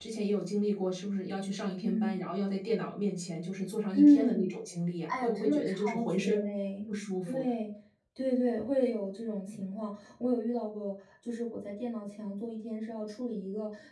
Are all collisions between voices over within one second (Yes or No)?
No